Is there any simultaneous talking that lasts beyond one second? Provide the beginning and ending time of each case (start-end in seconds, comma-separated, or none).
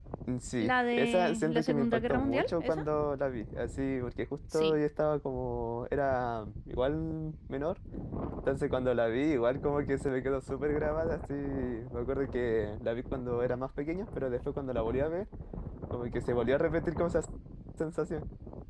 0.6-2.8